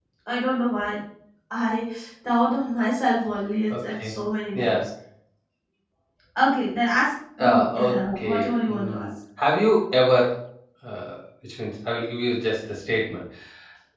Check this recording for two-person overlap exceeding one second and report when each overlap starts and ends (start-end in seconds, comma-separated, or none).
7.4-9.1